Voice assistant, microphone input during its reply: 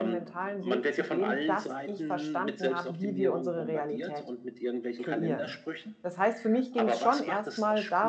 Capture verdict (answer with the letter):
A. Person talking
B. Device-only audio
A